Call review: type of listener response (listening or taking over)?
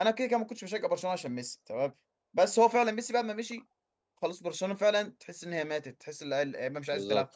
taking over